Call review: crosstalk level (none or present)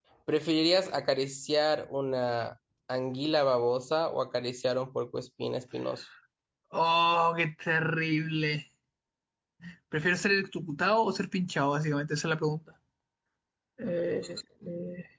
none